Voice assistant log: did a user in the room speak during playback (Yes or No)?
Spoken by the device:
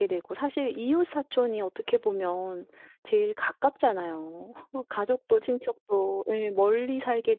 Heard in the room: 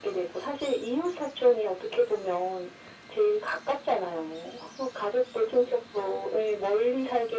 No